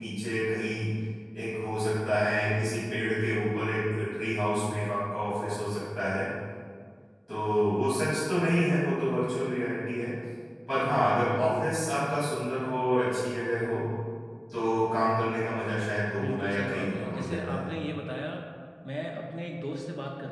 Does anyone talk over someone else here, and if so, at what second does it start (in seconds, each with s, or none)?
16.2 s